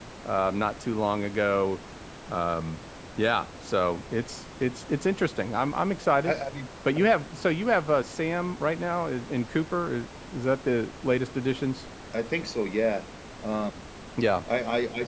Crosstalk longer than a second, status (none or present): none